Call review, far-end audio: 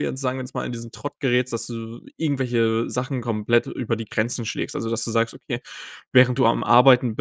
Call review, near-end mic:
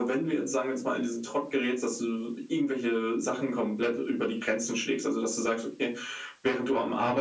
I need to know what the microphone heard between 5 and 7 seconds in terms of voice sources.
echo only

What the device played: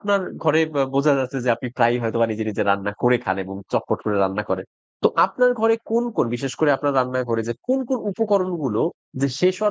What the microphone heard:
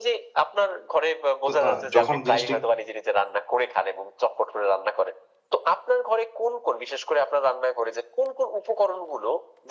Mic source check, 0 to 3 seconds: both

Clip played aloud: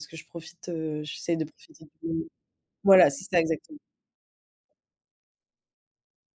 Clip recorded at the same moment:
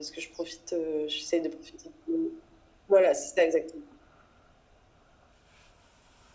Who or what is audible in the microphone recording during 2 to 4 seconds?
echo only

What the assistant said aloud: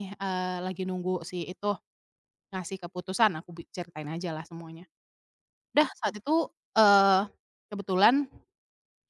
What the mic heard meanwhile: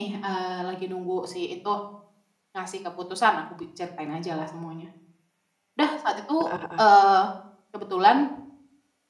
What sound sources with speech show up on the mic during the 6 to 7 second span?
both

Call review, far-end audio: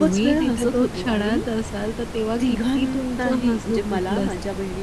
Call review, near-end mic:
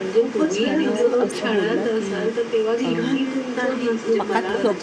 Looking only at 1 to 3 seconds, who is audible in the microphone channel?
both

